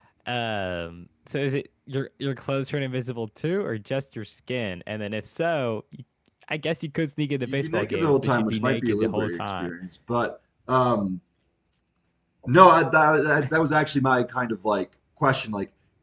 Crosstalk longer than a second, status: present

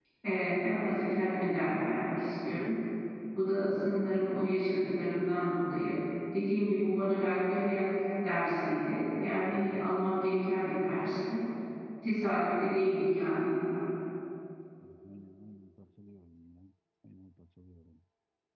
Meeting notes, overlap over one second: none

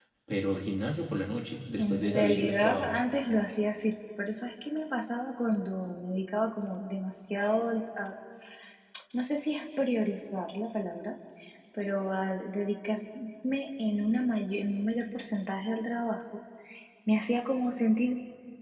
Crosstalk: present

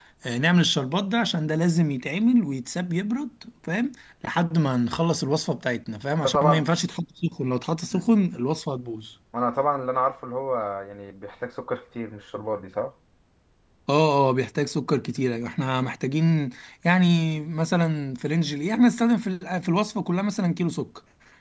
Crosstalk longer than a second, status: none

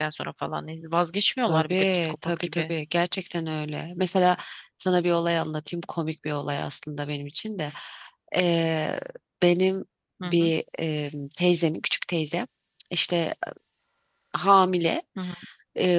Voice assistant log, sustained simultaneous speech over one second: present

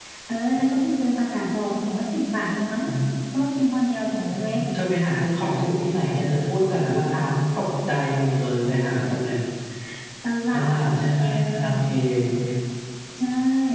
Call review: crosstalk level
present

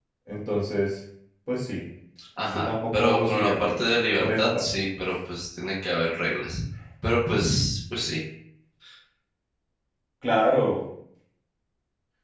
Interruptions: present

